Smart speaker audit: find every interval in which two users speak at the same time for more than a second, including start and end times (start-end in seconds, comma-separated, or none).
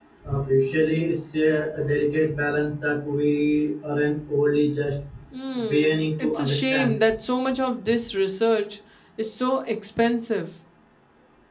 5.7-6.9